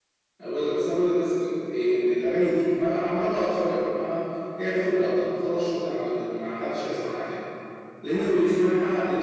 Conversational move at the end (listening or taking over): listening